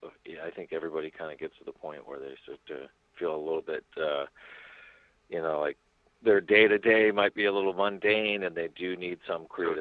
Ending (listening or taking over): listening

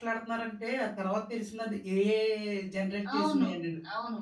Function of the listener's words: taking over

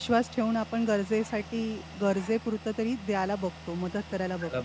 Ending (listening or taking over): taking over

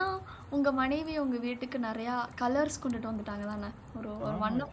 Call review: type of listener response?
taking over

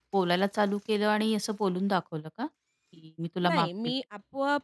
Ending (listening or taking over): taking over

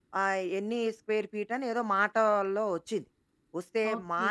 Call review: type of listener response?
listening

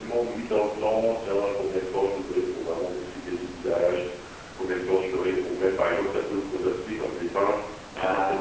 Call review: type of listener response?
listening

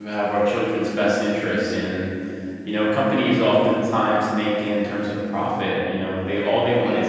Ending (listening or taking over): listening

